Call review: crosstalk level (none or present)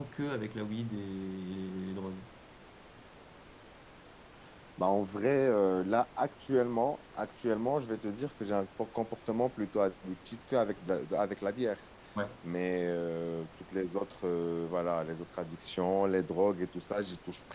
none